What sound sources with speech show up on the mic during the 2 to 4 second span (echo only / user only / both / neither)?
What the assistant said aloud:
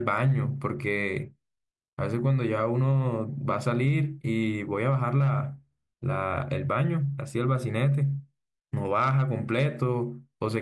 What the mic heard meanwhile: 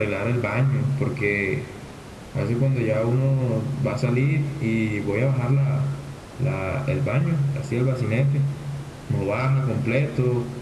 echo only